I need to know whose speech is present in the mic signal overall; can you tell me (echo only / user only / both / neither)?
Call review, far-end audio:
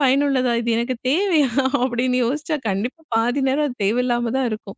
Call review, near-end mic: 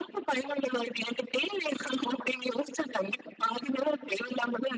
echo only